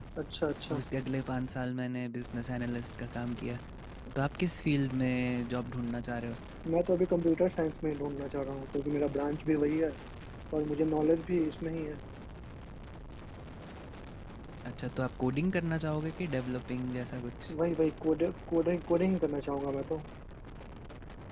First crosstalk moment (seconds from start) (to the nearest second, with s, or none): none